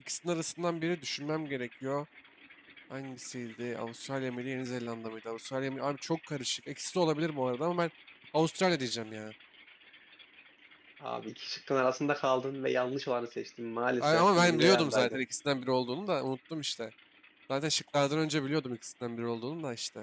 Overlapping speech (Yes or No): Yes